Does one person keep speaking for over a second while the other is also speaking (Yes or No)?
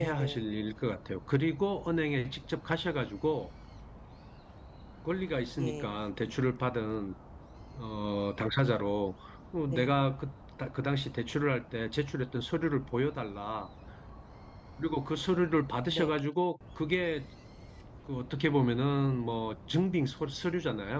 No